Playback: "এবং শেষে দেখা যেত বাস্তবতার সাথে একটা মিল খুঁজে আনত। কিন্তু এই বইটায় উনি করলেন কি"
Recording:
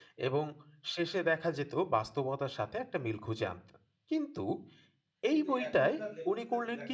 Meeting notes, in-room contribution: present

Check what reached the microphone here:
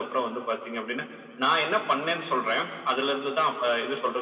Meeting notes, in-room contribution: none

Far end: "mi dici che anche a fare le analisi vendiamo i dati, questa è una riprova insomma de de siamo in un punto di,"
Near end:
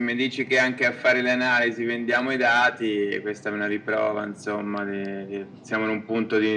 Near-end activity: none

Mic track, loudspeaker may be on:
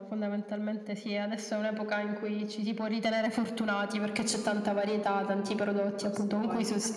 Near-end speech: present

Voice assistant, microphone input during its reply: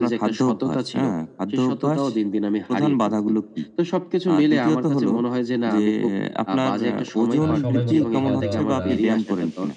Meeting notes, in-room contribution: present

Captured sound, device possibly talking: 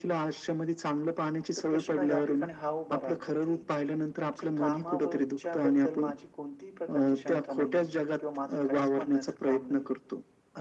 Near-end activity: present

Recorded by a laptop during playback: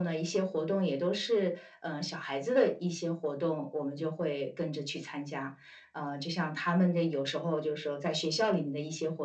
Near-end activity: none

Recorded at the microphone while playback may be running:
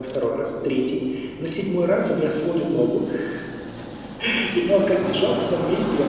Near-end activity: none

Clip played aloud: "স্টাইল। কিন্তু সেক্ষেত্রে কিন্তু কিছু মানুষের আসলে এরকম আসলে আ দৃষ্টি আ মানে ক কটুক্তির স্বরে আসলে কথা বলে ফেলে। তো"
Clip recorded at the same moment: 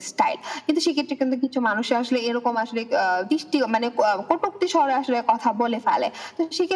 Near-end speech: none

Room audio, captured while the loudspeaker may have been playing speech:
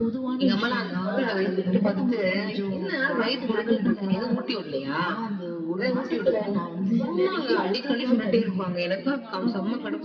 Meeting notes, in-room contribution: present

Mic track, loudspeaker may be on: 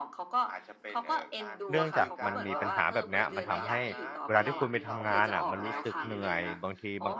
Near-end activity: present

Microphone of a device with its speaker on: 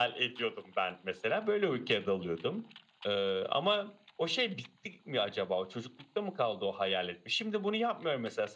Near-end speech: none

